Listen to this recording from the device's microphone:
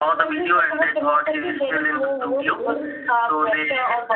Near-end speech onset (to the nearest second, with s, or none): 2 s